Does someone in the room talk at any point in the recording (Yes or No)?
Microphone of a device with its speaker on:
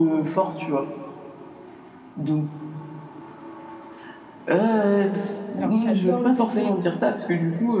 Yes